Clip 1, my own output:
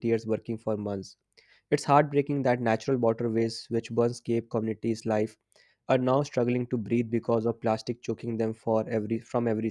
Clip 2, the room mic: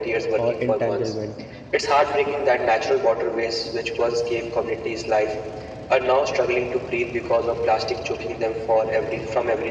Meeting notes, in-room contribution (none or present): present